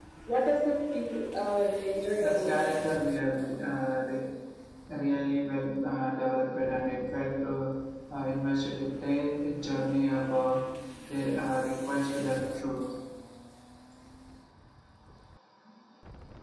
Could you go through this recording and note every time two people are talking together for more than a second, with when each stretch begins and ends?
none

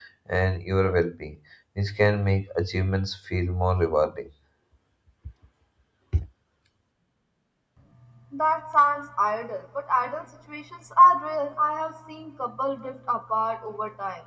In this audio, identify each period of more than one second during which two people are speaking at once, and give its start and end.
none

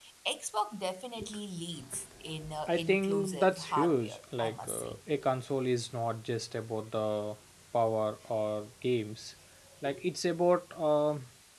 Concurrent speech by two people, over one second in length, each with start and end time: 2.7-5.0

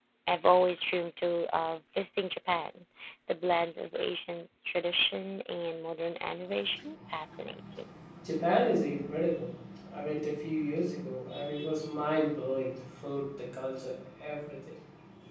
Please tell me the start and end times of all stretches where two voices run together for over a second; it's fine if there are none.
none

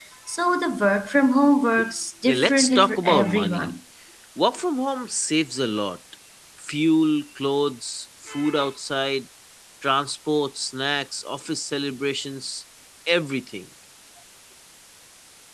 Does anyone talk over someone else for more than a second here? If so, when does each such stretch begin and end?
2.2-3.7

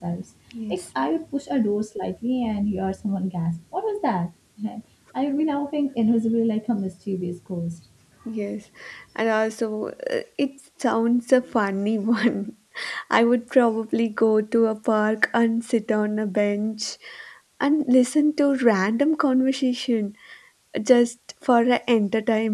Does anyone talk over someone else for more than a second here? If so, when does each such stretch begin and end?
none

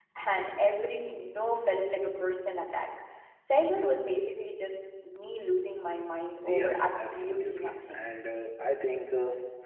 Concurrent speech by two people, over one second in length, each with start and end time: 6.5-8.0

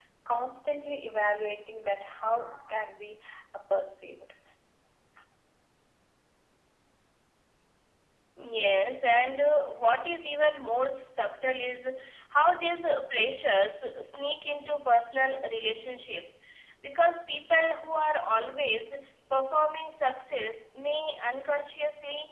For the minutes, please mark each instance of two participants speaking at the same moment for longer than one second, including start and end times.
none

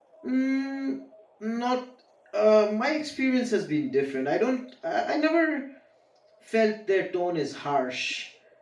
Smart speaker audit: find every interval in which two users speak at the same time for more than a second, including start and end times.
none

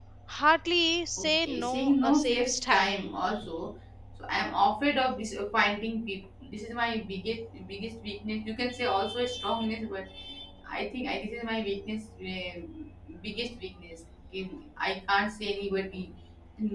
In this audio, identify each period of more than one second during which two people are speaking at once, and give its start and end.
1.2-3.1

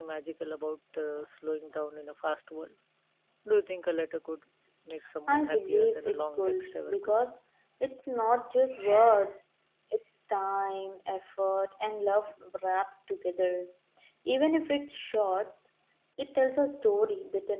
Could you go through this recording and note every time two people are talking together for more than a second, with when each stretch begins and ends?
5.3-7.1

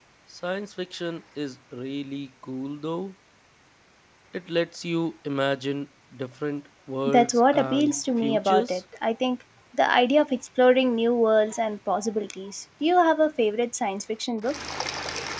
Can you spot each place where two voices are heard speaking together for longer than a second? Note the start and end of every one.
7.1-8.8

